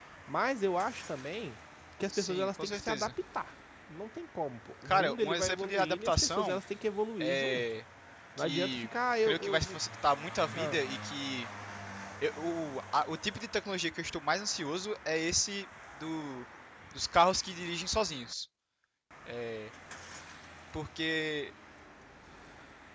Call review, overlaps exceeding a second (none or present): present